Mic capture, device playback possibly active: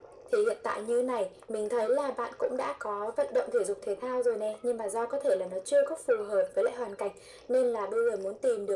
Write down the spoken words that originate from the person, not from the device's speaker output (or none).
none